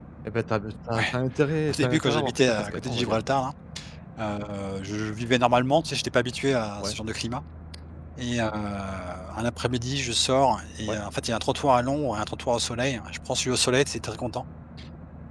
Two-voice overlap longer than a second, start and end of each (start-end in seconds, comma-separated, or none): 1.7-3.2